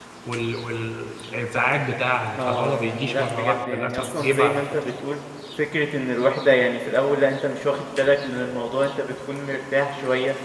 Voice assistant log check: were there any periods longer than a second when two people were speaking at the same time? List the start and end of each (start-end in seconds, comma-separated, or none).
2.4-4.6